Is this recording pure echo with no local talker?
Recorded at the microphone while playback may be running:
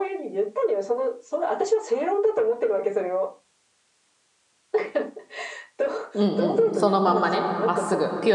No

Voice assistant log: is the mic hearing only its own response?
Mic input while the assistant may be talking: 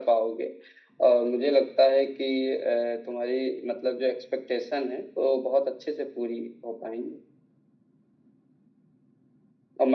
Yes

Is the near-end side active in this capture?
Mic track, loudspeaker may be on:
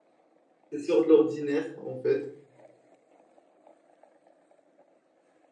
Yes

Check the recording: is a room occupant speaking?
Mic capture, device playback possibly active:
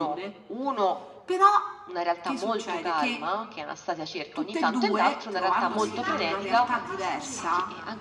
Yes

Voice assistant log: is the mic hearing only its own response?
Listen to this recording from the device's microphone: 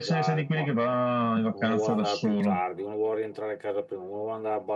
No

